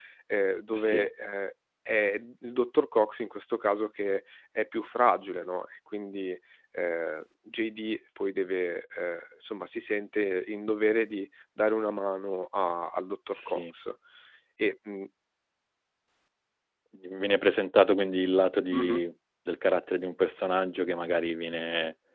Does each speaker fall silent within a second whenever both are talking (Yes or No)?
Yes